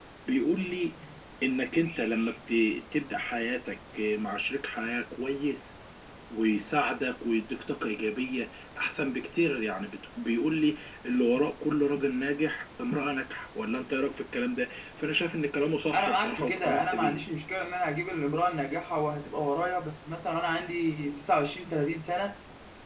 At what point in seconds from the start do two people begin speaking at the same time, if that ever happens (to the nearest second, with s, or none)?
16 s